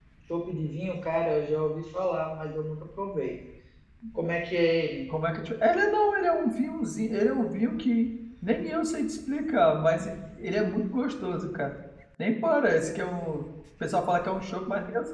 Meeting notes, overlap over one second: none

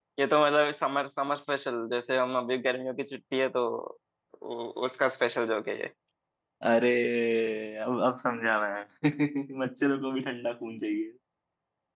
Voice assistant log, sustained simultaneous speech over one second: none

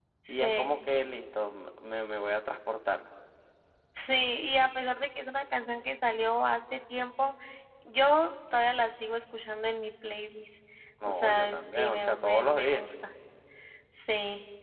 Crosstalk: present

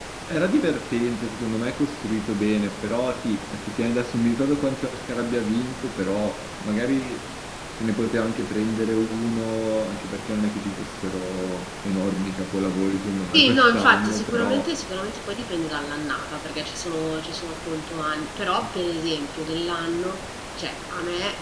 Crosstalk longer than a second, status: present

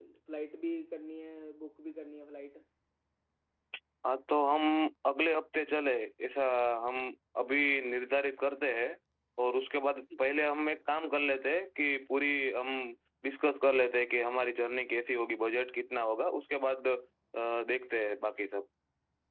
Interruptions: none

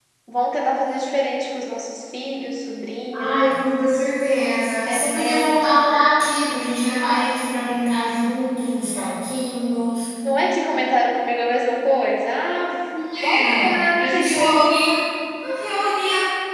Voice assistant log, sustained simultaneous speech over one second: present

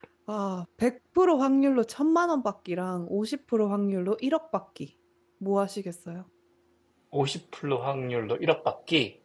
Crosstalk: none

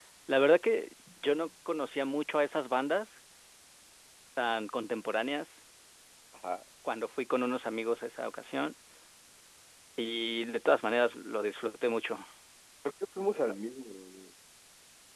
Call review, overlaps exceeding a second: none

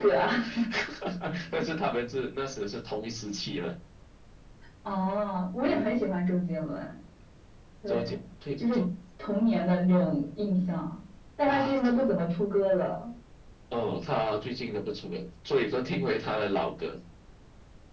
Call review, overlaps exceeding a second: none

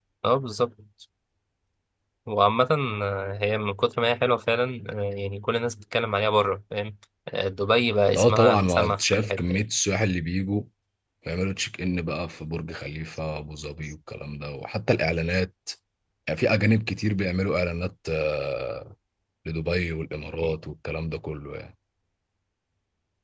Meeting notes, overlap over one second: present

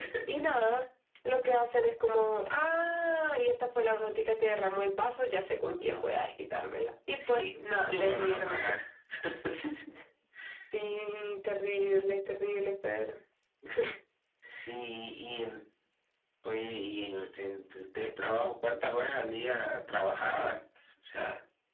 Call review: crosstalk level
present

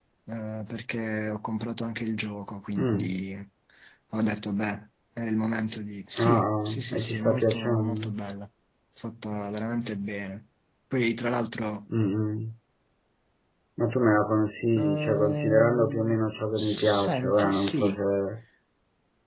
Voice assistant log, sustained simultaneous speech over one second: present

